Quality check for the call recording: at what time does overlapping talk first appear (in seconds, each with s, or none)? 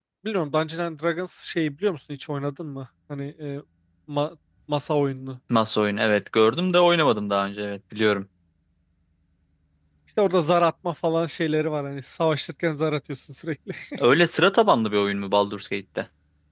none